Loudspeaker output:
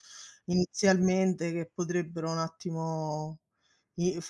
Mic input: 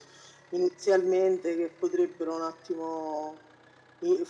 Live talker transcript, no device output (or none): none